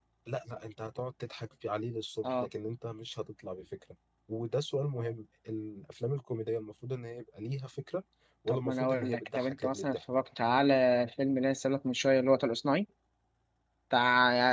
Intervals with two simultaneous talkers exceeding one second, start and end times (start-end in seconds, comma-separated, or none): 8.5-10.0